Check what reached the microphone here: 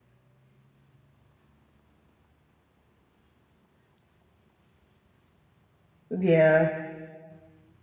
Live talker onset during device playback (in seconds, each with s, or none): 6.1 s